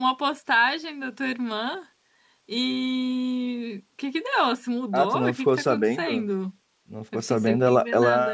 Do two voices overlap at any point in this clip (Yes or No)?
Yes